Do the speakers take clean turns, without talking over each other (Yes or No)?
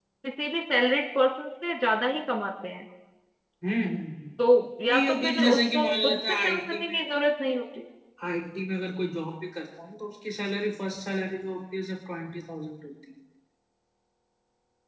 No